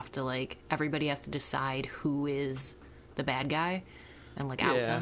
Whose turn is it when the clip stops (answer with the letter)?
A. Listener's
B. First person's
A